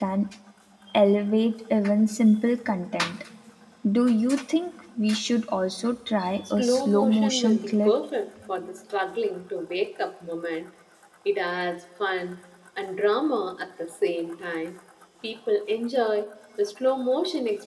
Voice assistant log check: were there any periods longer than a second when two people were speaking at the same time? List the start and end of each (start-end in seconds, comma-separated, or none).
6.6-7.9